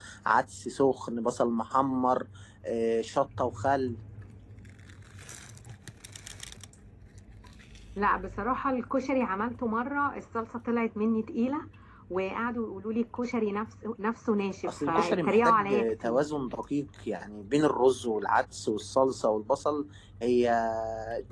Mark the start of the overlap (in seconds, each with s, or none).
14.6 s